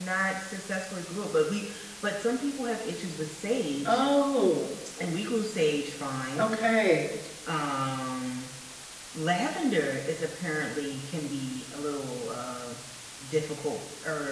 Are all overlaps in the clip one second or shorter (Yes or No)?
Yes